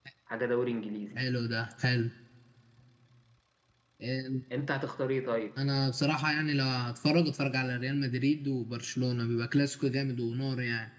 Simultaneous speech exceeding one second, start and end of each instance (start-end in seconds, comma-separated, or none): none